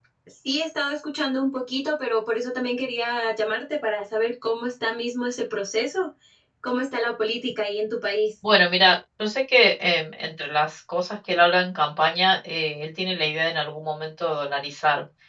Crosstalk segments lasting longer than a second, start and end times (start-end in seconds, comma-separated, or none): none